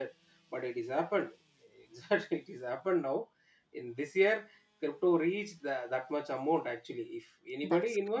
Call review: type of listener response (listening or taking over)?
listening